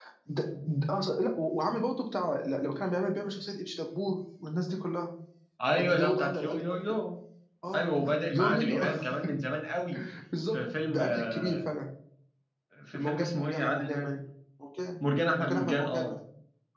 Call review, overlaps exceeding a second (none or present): present